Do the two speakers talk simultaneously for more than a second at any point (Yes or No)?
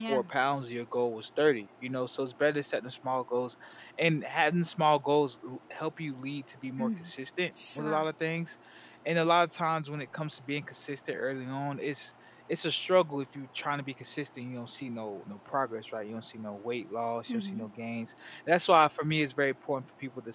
No